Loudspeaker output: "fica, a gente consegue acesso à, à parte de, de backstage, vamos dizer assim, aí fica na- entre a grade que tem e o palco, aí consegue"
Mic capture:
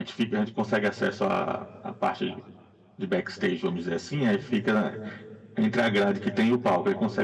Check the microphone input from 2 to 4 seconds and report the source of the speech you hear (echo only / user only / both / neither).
echo only